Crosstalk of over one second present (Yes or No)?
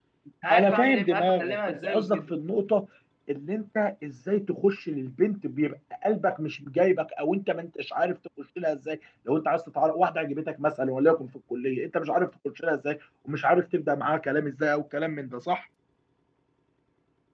Yes